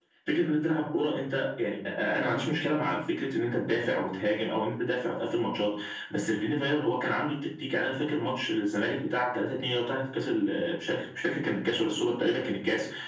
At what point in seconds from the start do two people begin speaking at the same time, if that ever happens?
none

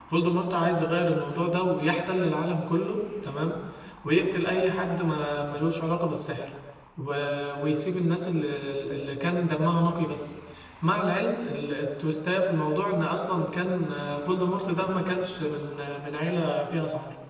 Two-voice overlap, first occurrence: none

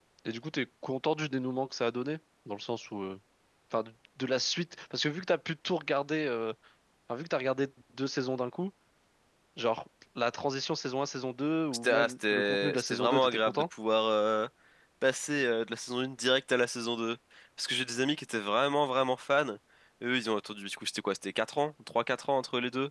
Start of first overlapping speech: 11.7 s

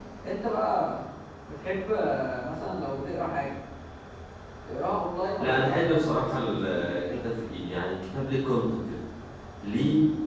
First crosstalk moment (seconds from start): 5.4 s

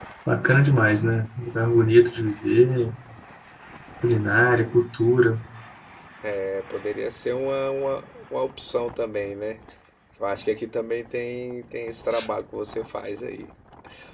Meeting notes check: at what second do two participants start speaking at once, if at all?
none

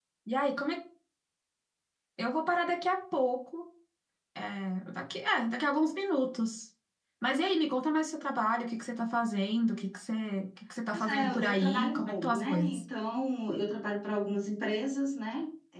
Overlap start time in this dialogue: 10.9 s

